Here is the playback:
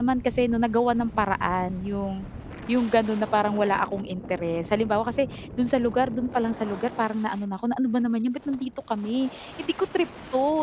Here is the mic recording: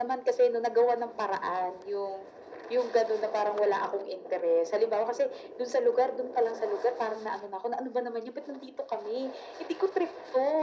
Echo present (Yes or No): Yes